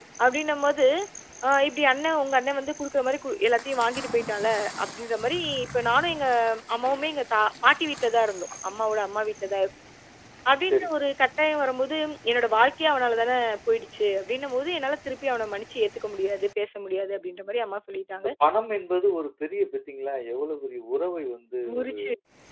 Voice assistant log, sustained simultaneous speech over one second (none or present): none